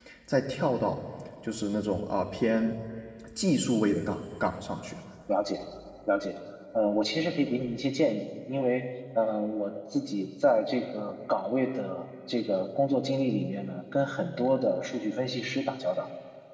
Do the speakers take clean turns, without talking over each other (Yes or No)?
Yes